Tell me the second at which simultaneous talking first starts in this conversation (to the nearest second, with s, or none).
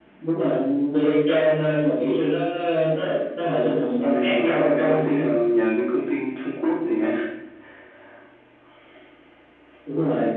4 s